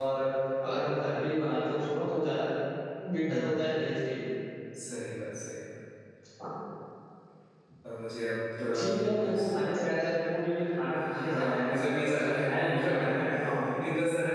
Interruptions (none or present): present